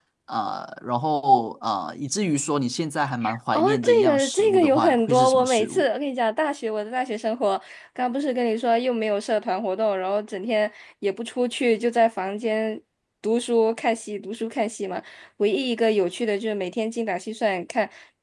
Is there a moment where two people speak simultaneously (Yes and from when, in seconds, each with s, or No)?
Yes, from 3.5 s